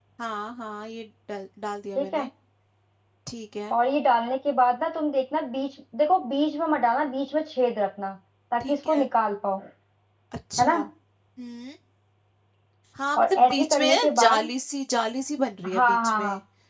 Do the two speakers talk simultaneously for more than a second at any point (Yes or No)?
Yes